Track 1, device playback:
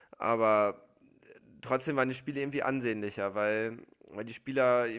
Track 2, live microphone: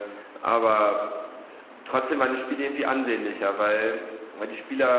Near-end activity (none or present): none